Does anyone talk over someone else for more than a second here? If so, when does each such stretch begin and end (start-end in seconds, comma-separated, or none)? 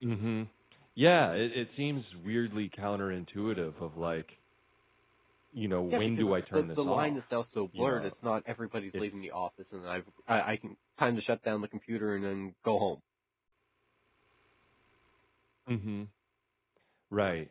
5.9-7.2